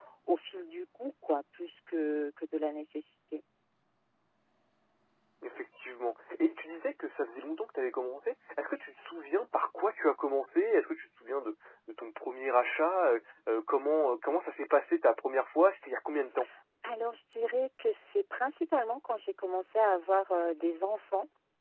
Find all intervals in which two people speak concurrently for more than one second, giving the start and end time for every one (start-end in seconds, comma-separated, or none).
none